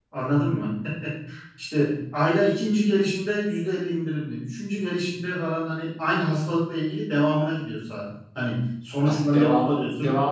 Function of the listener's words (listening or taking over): taking over